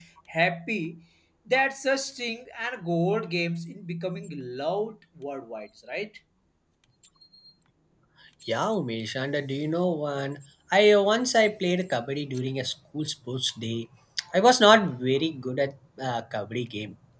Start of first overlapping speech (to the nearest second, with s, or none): none